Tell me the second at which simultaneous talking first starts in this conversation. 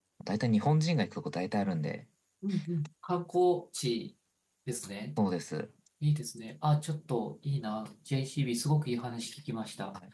none

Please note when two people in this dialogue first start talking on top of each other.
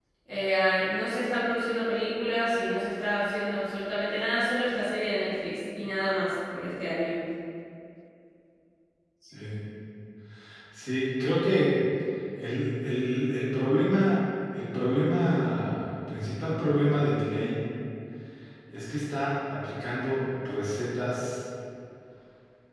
none

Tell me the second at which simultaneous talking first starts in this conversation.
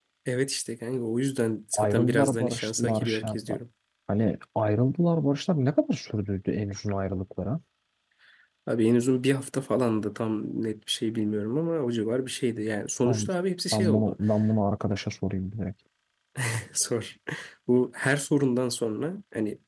2 s

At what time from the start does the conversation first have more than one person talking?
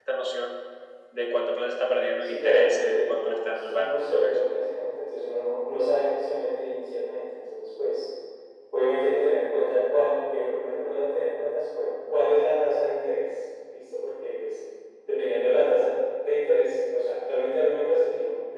2 s

